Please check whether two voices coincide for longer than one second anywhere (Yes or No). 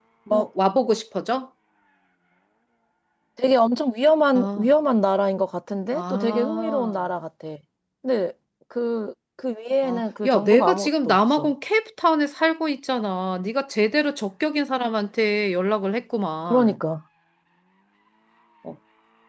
Yes